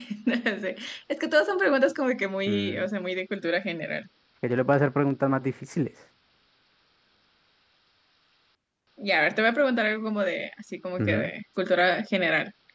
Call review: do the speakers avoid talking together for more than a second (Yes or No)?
Yes